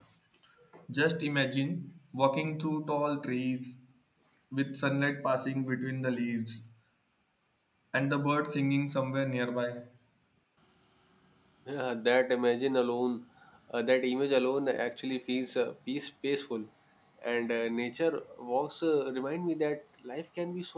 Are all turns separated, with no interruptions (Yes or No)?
Yes